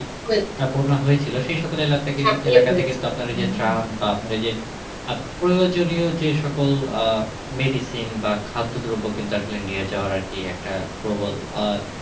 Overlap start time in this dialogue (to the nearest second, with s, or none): 2 s